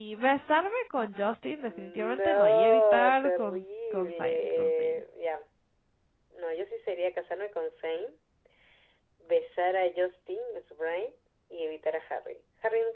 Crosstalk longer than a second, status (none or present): present